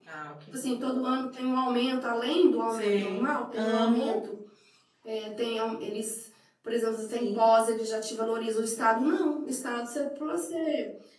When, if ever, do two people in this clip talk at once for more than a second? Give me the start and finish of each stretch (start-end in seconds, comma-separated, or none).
2.7-4.2